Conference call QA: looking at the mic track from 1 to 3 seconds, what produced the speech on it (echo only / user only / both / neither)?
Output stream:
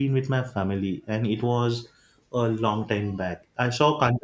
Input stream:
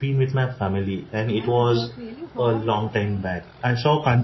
both